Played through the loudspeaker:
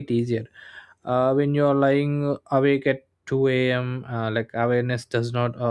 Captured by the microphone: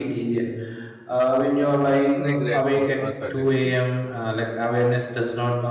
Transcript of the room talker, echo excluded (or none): you know, regret or uncertainty.